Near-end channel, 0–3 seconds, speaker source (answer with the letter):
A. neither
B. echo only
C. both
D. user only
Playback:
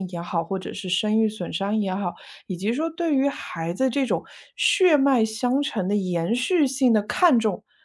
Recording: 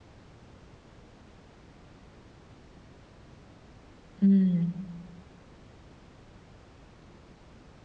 A